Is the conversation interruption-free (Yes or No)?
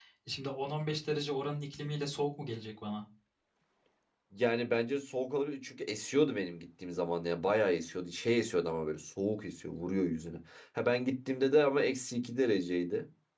Yes